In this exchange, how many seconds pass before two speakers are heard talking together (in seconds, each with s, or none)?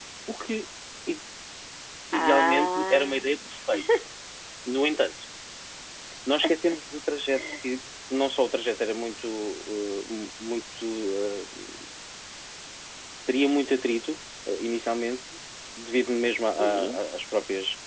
2.1 s